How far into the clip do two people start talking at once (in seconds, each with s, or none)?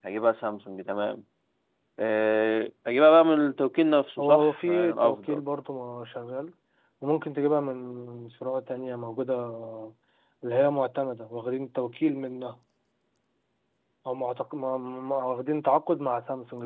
4.2 s